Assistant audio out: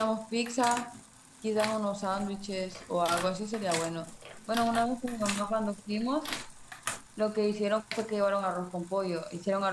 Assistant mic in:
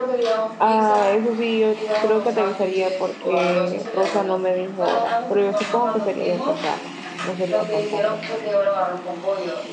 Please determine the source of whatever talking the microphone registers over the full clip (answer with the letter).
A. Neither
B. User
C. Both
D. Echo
C